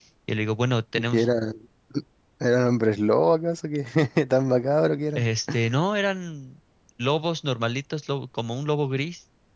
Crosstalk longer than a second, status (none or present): none